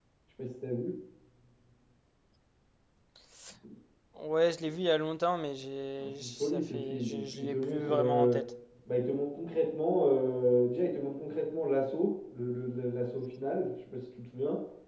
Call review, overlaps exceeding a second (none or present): present